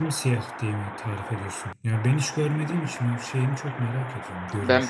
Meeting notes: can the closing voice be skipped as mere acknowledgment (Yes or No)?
No